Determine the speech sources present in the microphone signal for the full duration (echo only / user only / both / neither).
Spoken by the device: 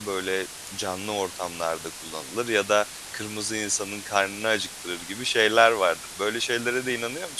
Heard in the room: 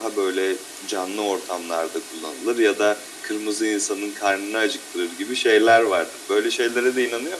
echo only